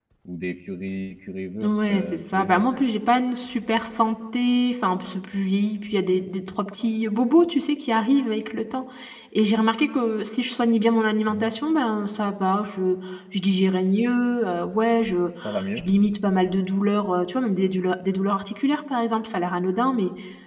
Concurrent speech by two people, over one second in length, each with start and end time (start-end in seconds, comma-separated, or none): 1.6-2.8